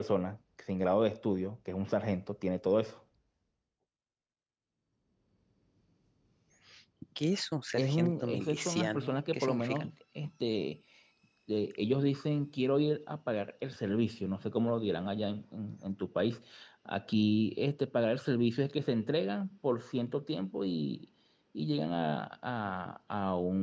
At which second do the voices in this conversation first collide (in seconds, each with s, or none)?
7.8 s